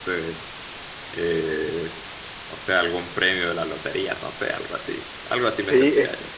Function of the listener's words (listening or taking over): taking over